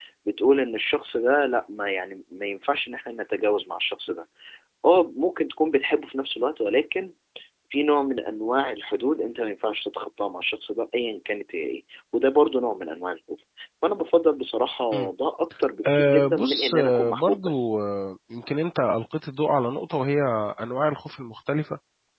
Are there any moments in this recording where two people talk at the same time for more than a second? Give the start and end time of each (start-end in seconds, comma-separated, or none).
15.9-17.7